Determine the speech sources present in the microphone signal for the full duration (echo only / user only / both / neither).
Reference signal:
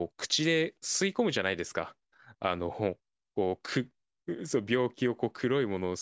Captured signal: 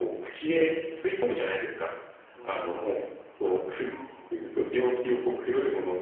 both